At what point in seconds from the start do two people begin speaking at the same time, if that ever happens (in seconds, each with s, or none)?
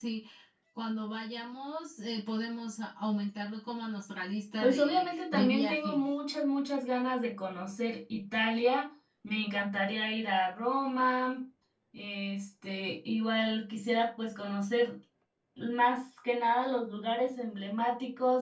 4.6 s